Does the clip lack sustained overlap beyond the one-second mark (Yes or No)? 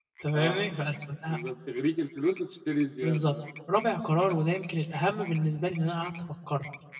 Yes